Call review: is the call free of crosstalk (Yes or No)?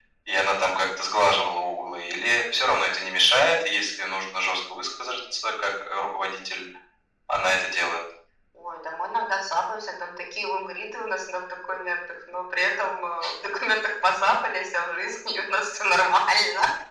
Yes